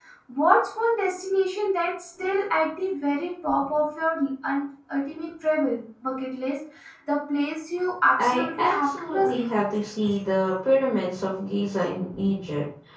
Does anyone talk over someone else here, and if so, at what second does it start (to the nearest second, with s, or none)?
8 s